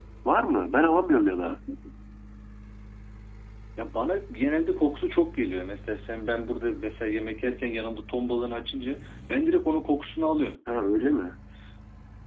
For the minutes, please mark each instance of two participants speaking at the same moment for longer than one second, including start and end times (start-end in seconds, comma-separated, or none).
none